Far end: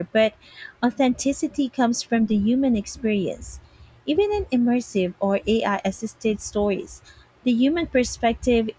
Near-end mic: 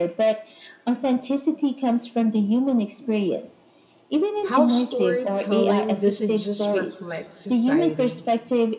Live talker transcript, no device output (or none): how storytelling doesn't just reflect society,